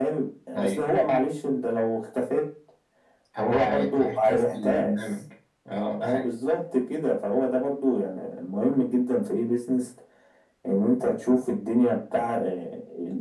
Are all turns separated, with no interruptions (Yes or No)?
No